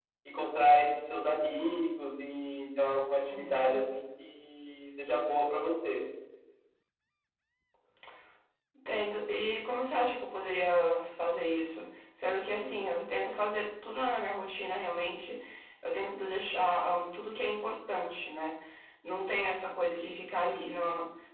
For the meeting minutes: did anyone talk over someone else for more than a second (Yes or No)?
No